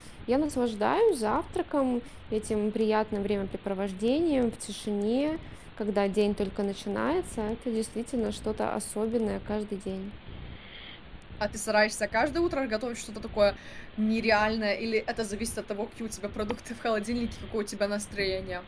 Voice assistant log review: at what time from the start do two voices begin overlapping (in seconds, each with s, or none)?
none